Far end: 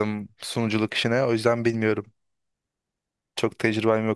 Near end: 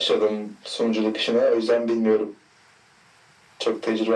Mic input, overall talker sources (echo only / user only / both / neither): echo only